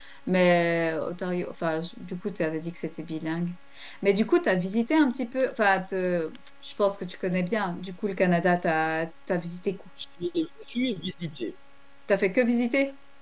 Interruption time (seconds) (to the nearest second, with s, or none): none